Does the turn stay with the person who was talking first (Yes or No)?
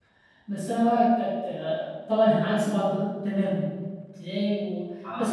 Yes